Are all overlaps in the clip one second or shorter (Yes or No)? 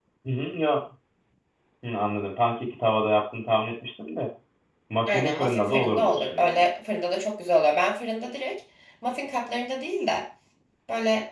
No